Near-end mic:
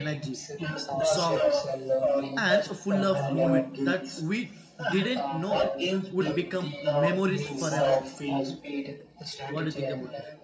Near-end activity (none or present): present